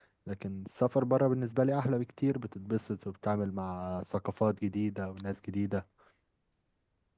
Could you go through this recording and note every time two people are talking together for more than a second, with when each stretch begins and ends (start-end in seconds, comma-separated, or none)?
none